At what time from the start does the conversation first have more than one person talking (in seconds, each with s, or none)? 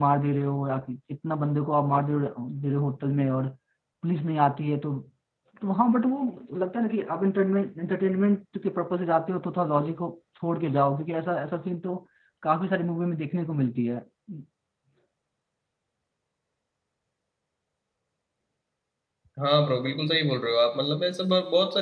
none